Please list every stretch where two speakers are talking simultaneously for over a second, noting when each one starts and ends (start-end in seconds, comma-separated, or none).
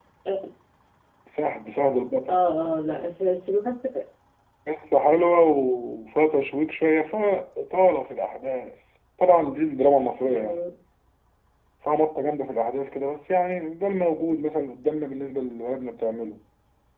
none